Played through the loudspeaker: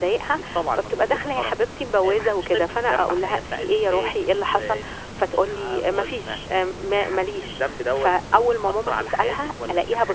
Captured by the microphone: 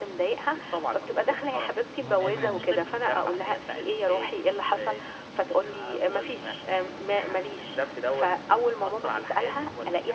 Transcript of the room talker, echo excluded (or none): آه.